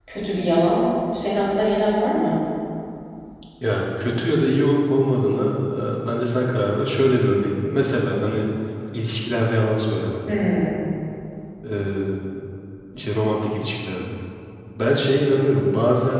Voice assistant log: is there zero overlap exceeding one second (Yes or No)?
Yes